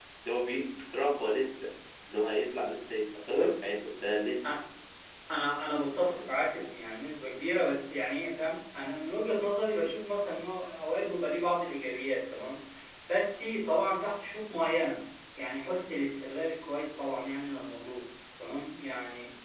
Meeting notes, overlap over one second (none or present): none